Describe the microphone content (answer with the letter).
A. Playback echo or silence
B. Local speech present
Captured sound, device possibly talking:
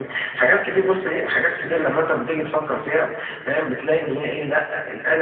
A